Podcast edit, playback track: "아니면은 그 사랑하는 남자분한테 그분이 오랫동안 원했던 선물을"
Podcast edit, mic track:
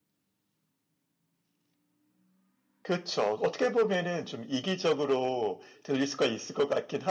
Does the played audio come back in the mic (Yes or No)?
No